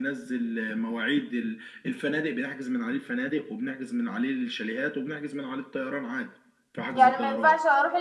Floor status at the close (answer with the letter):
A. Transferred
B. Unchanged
A